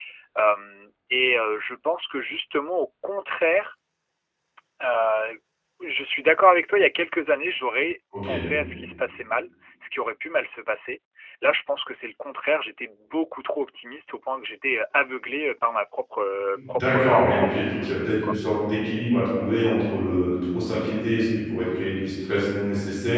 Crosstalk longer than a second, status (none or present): present